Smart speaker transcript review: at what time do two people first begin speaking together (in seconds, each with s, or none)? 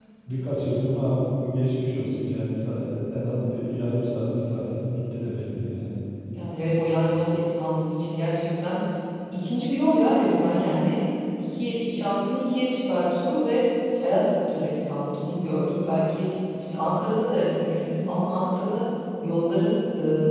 none